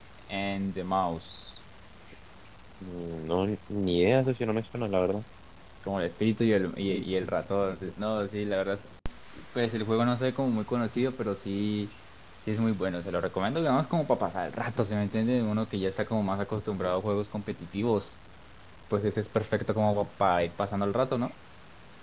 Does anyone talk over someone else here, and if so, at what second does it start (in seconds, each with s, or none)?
none